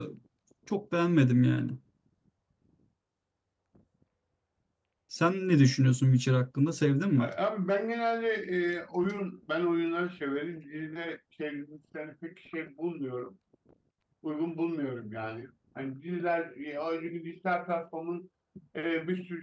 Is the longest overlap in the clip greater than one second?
No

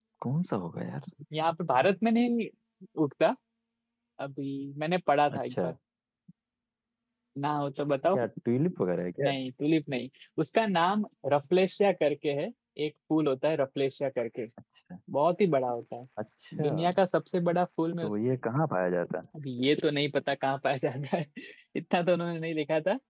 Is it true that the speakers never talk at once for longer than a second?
Yes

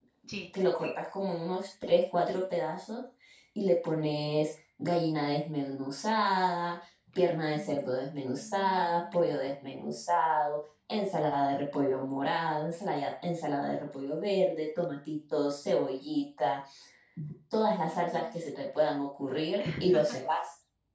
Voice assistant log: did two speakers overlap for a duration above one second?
Yes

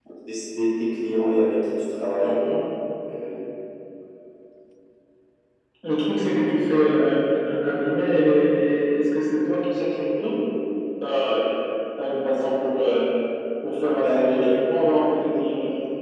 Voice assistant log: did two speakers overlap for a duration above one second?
No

